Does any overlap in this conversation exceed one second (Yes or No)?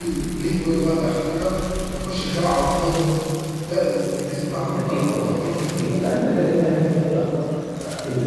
Yes